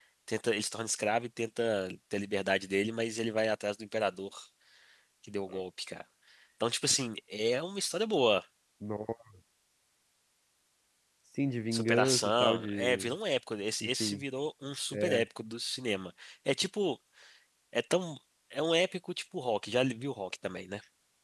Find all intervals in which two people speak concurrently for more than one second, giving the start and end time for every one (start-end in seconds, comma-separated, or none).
11.7-13.1